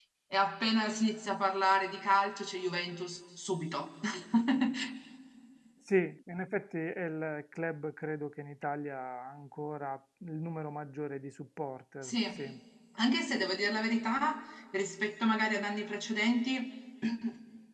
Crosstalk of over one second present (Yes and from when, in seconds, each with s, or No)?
No